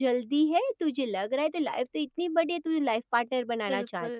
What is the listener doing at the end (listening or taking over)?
taking over